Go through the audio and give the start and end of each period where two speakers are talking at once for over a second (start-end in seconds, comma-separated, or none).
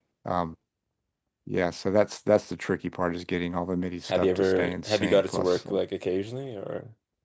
4.1-5.6